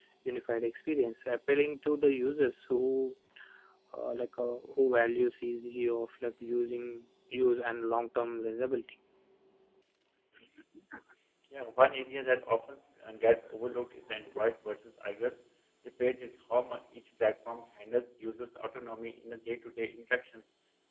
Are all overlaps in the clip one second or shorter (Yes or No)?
Yes